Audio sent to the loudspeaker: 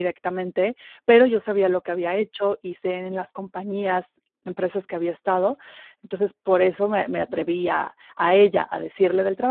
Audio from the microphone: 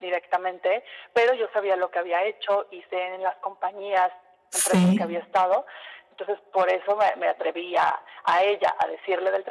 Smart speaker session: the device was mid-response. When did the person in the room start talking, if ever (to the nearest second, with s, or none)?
4 s